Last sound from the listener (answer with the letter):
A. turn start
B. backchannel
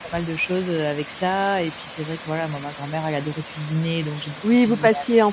A